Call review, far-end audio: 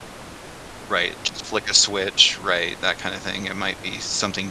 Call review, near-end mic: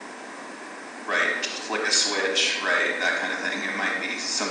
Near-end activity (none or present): none